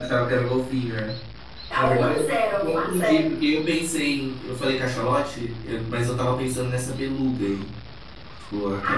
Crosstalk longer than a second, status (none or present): present